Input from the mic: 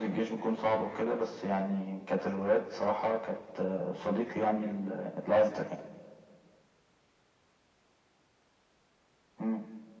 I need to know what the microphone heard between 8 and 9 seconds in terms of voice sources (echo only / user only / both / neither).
neither